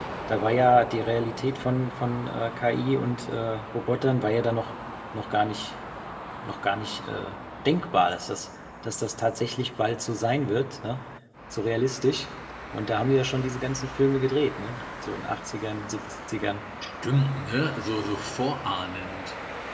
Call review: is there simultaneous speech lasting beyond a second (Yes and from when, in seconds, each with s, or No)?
No